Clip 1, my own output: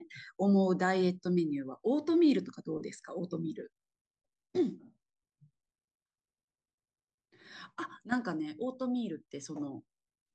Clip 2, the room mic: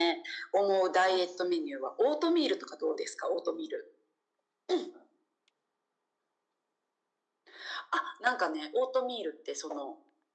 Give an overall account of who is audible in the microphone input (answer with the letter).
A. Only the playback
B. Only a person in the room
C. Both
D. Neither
C